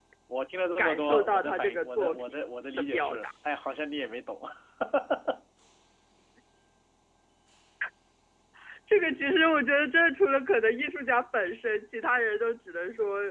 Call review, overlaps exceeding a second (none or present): present